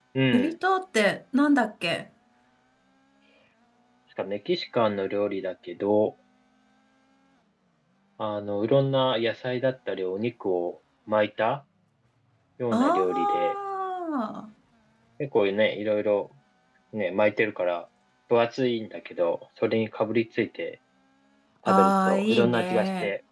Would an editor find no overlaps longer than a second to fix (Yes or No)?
No